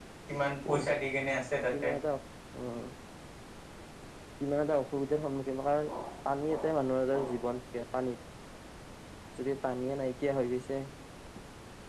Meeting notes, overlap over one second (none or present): none